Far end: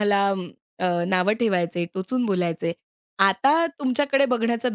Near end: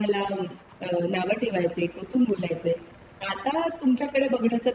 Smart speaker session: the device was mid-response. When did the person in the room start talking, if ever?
none

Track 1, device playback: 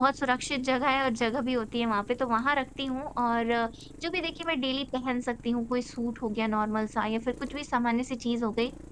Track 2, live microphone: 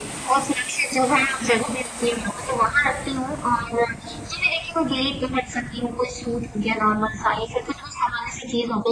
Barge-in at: none

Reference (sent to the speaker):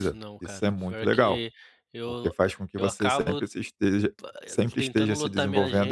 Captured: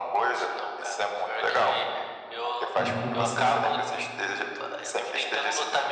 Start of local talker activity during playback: 2.8 s

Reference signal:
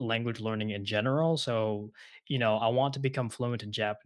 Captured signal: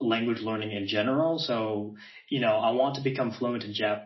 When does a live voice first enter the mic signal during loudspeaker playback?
none

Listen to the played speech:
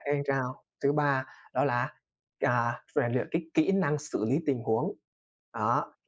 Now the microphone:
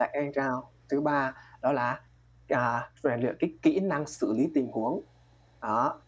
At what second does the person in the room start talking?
none

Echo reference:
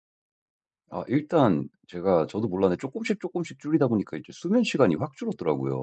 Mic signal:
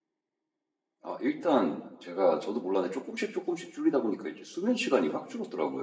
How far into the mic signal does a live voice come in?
none

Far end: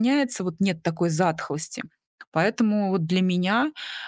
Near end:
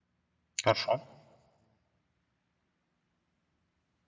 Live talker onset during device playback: 0.6 s

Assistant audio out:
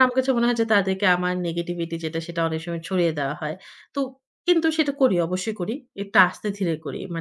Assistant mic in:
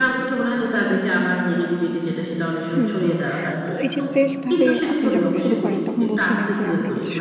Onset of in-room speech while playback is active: 2.8 s

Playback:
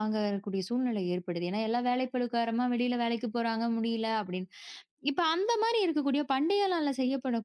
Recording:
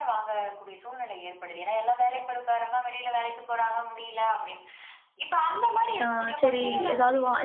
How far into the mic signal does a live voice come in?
6.0 s

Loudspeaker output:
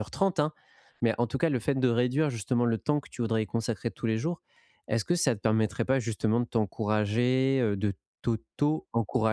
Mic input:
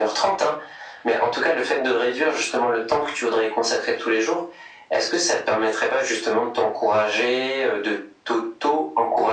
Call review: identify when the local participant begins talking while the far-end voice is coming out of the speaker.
none

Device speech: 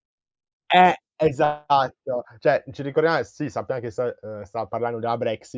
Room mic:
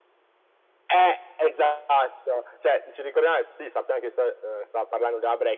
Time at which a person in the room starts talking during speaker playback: none

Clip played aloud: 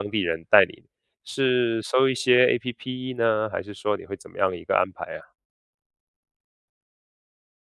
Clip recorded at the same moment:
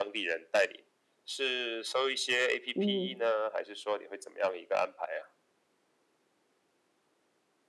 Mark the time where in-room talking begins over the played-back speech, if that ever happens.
2.8 s

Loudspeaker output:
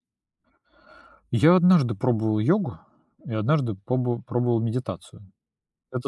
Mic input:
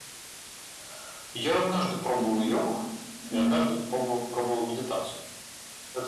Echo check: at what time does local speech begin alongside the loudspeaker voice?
2.2 s

